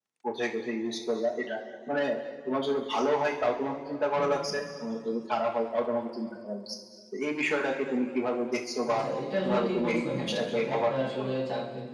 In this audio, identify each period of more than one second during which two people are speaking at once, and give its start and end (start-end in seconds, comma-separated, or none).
9.4-11.3